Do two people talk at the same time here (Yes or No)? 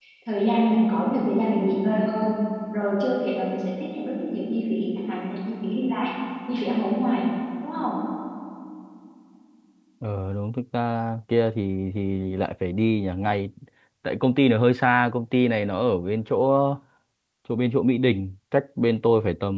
No